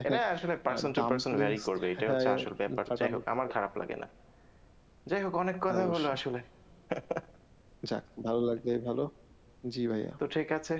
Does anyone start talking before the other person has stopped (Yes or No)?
Yes